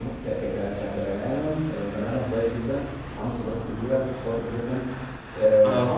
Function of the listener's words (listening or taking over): listening